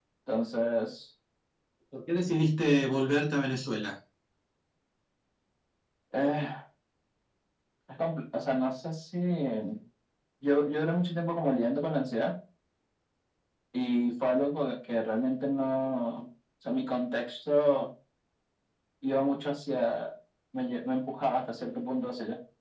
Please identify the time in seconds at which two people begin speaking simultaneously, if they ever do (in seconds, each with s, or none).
none